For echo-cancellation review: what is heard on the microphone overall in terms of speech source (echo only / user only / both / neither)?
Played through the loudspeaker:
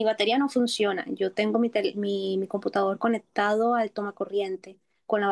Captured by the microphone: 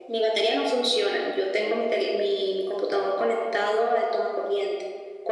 echo only